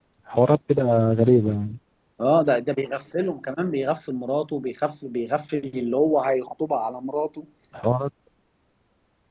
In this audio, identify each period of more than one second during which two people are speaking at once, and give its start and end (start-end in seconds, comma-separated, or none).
none